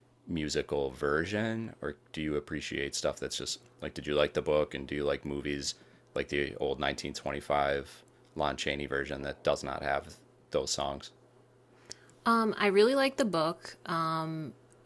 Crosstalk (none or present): none